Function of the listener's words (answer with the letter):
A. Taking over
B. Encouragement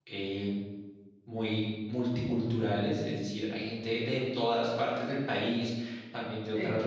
B